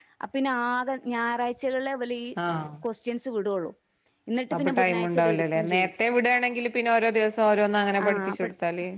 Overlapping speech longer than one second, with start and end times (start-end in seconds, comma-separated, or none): 4.5-5.9